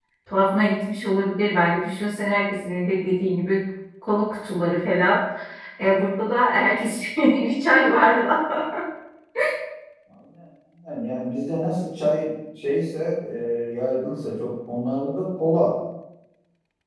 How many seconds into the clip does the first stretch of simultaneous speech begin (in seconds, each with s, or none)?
none